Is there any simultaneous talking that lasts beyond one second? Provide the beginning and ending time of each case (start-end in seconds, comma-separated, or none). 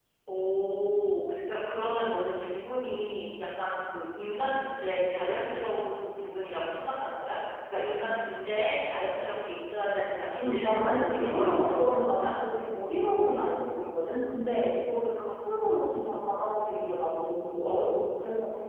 10.4-12.3